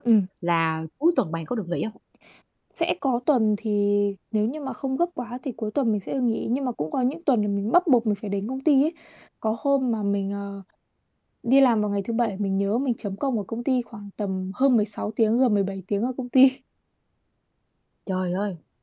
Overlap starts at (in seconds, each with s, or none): none